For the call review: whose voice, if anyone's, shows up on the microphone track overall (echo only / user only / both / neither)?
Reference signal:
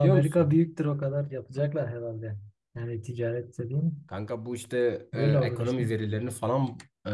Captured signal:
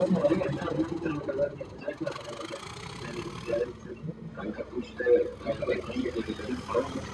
echo only